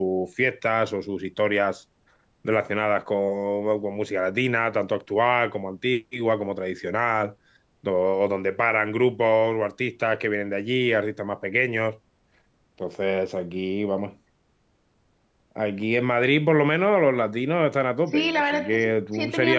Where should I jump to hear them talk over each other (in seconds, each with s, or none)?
18.1 s